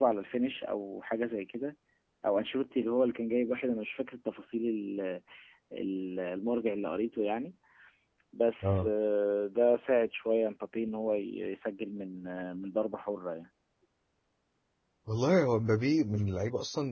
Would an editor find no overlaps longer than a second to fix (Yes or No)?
Yes